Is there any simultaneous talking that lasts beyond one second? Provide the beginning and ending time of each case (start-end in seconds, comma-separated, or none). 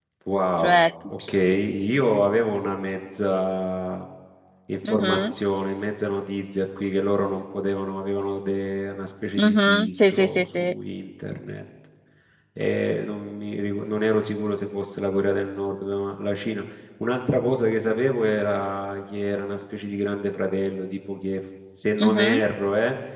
9.4-10.7